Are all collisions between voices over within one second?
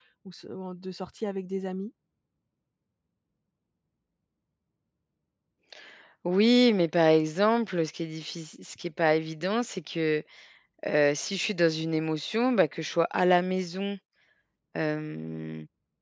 Yes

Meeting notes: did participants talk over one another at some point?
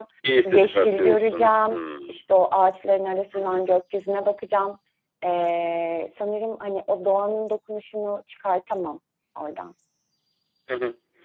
Yes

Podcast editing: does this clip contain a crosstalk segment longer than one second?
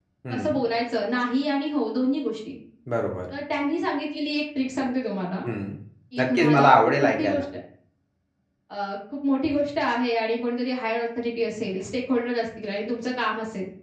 Yes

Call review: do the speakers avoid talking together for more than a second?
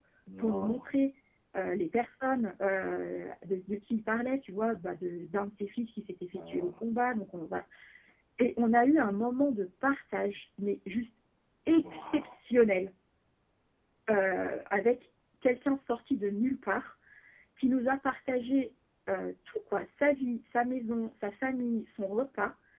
Yes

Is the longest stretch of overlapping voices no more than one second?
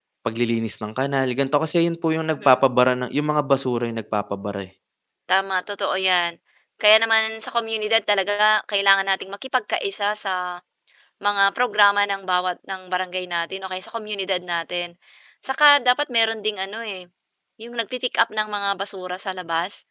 Yes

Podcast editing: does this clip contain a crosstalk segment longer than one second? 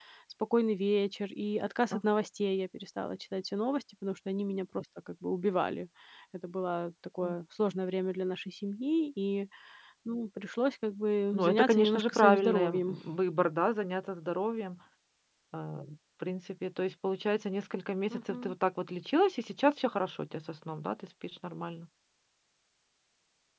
Yes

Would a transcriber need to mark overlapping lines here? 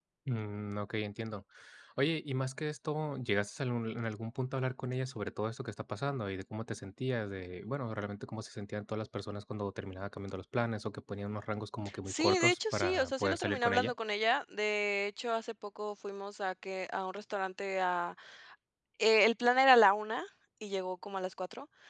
Yes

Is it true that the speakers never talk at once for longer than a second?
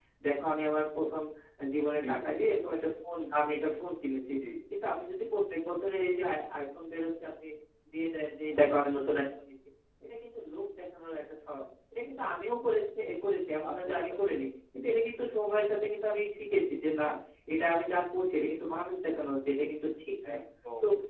Yes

